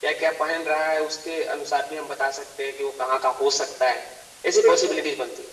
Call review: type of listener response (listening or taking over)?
listening